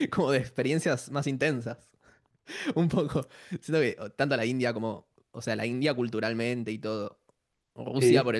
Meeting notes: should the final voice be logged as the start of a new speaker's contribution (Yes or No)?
No